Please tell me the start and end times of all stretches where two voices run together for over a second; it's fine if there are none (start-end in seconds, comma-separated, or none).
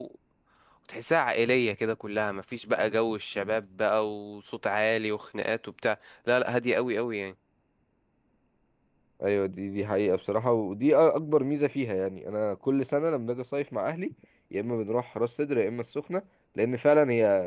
none